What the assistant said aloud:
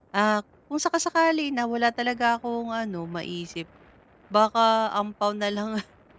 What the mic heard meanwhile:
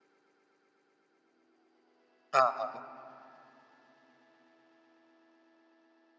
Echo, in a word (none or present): none